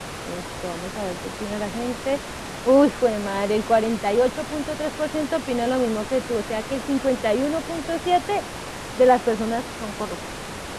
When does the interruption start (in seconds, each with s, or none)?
none